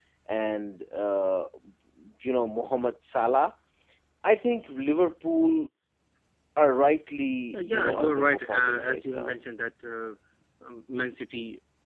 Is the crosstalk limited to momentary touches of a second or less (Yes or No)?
No